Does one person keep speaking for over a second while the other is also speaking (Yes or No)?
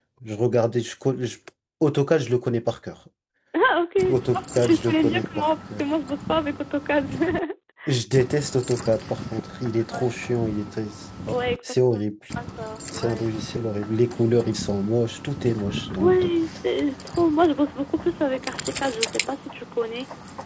Yes